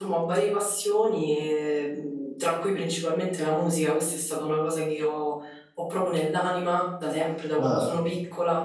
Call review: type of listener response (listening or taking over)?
listening